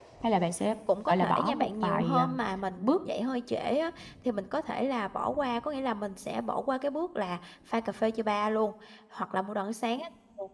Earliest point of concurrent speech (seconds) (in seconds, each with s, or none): 1.1 s